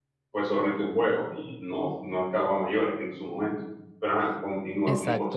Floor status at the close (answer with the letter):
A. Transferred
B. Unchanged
A